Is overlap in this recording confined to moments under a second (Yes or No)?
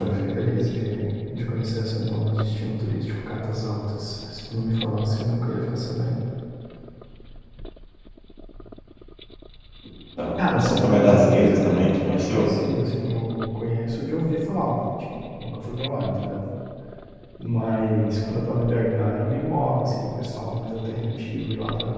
No